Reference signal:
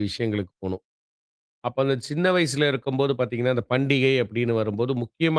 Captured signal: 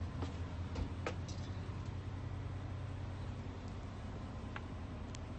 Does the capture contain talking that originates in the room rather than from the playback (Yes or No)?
No